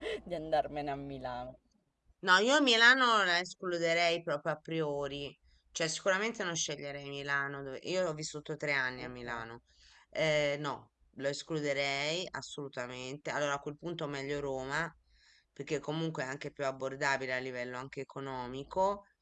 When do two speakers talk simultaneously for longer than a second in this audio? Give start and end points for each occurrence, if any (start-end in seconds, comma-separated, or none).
none